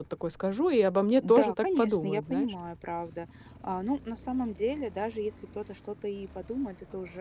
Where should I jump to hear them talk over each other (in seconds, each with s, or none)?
1.2 s